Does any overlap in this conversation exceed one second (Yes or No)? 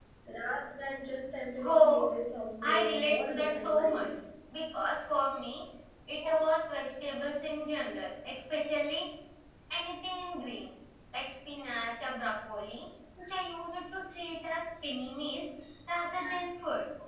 Yes